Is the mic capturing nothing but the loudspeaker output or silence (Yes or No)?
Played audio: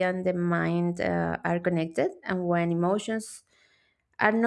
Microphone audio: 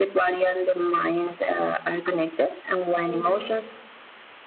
No